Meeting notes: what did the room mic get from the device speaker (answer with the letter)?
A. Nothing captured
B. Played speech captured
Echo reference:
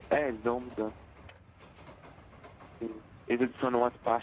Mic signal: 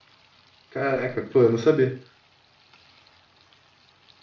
A